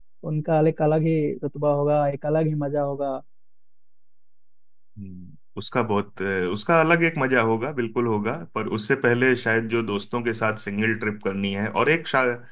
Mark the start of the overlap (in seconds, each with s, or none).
none